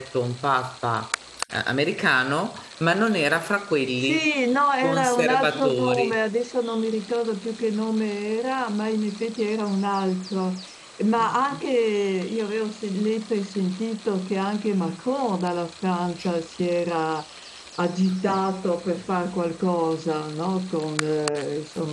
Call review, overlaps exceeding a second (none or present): present